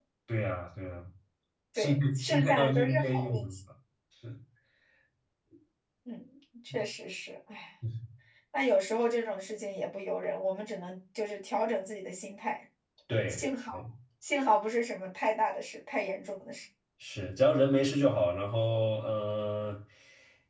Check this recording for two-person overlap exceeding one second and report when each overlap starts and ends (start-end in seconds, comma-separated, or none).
1.8-3.6